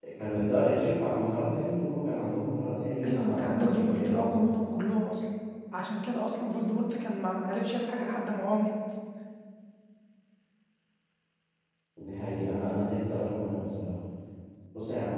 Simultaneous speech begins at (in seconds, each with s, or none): 3.0 s